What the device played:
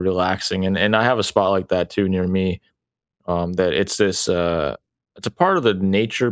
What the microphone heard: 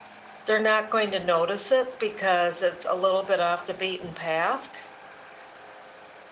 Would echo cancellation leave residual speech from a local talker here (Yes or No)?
Yes